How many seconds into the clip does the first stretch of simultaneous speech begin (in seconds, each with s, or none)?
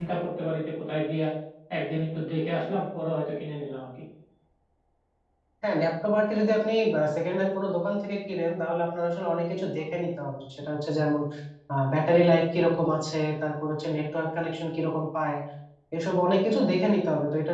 none